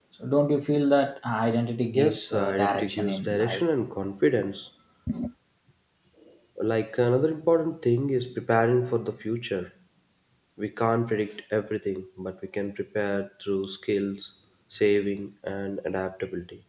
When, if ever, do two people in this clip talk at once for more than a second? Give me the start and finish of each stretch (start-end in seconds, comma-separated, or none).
1.9-3.6